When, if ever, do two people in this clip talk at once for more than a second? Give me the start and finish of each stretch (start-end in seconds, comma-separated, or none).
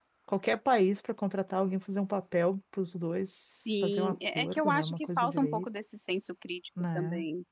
3.8-5.7